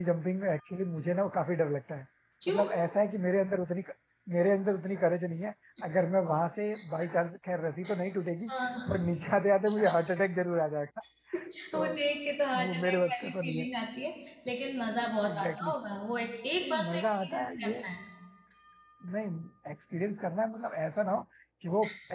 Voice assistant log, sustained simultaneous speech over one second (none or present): present